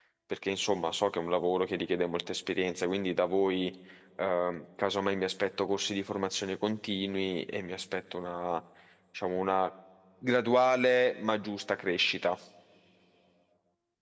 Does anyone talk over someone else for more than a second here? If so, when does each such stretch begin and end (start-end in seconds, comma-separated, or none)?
none